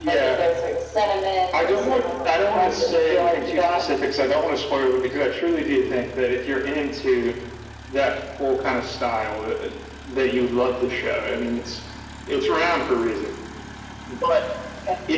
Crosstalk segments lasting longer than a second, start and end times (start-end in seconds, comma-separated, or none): 1.6-3.8